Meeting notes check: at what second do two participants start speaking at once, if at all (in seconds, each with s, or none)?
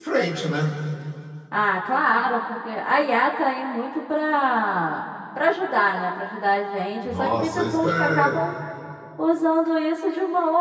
7.1 s